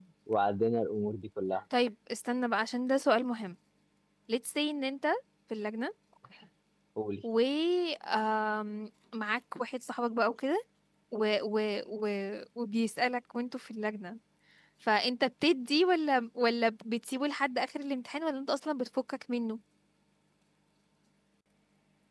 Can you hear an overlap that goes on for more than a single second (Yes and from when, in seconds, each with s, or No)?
No